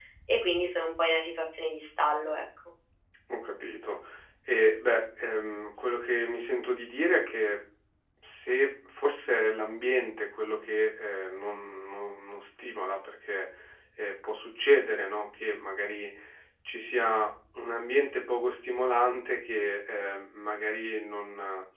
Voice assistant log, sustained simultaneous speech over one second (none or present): none